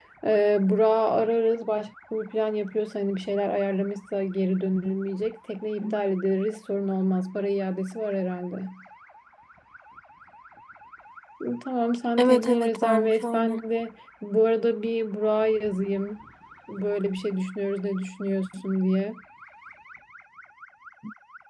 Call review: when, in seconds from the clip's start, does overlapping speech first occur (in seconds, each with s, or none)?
12.2 s